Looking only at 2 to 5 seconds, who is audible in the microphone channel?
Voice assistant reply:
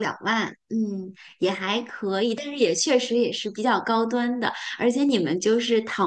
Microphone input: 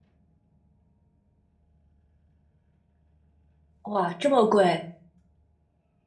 user only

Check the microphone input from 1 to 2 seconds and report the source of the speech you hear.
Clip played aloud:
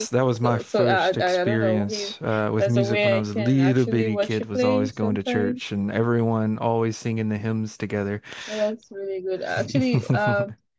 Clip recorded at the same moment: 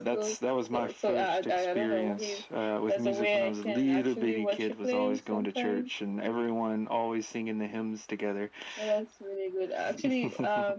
echo only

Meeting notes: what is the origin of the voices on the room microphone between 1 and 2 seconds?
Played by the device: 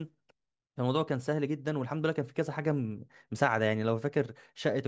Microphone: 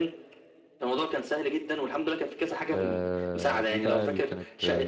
echo only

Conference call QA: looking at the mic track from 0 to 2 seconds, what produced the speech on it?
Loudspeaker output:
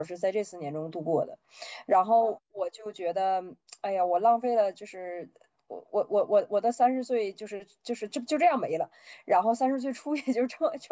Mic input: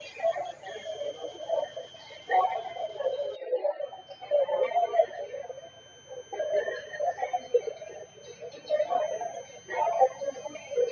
echo only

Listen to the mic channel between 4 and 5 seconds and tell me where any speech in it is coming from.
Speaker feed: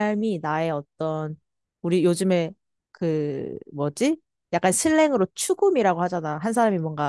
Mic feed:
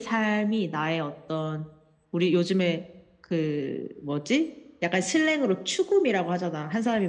echo only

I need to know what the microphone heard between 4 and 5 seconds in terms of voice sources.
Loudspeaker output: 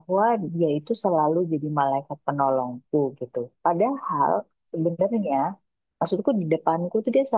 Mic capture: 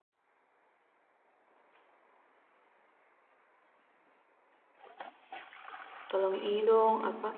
neither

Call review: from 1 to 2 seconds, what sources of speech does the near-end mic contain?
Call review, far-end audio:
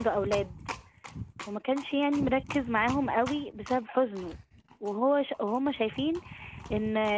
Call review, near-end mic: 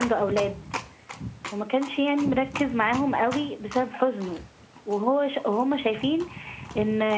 echo only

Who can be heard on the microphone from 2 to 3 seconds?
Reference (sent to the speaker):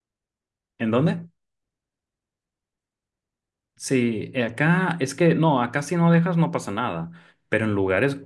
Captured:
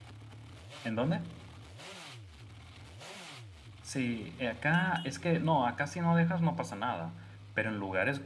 neither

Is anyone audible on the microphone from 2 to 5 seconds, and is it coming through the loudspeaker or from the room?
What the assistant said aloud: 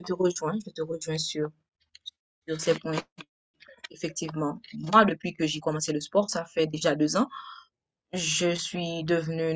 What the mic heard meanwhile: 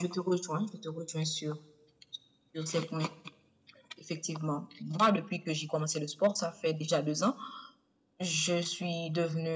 echo only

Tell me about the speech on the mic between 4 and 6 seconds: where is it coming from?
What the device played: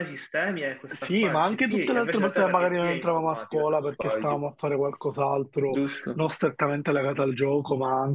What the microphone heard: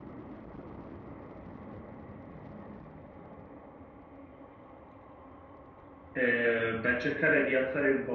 neither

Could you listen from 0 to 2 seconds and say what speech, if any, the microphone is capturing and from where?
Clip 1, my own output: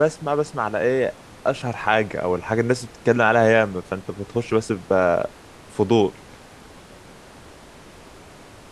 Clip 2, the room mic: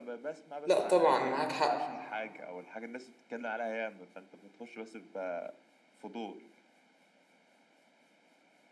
both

